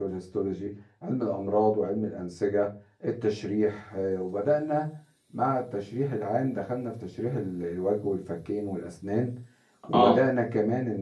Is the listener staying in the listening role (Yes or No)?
Yes